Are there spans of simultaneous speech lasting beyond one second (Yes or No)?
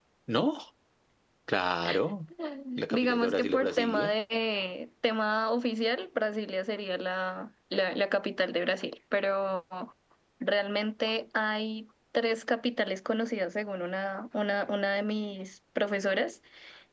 Yes